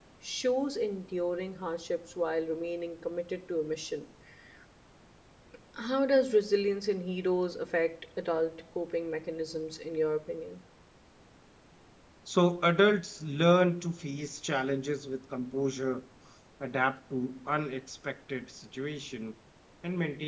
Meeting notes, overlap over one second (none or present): none